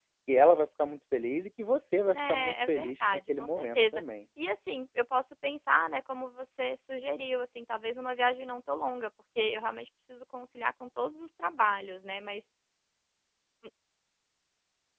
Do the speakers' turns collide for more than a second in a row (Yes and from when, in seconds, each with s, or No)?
Yes, from 2.1 s